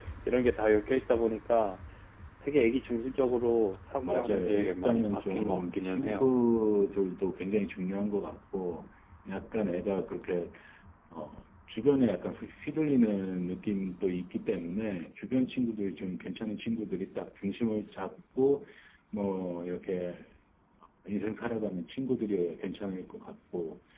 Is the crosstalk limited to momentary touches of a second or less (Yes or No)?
No